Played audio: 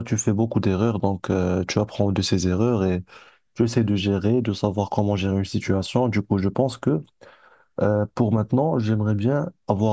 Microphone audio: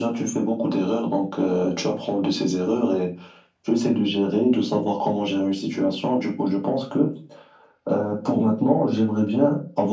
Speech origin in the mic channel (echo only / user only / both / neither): echo only